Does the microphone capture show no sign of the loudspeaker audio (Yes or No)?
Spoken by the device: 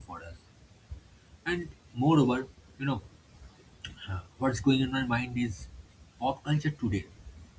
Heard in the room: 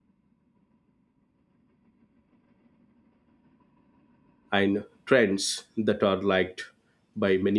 Yes